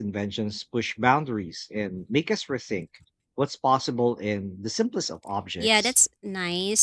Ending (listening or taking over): taking over